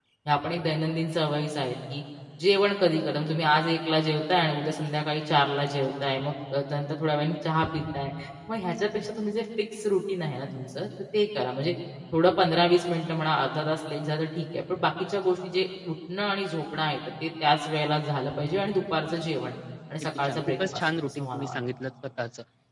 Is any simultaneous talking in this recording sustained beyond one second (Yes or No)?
Yes